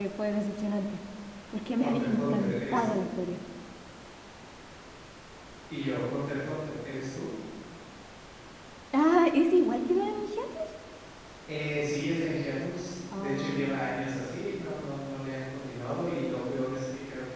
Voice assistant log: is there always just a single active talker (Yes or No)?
No